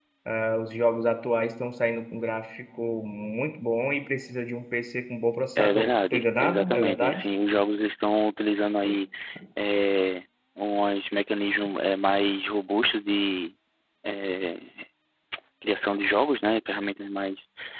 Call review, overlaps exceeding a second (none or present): present